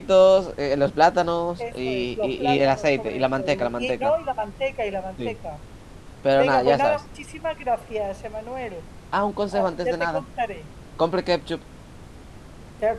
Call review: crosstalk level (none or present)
present